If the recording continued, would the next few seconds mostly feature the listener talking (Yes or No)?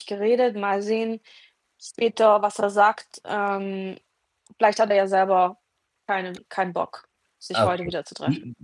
Yes